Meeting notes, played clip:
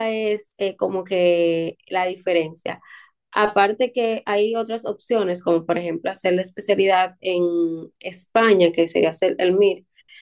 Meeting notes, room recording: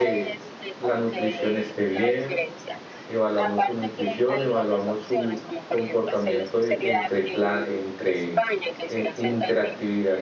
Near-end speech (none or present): present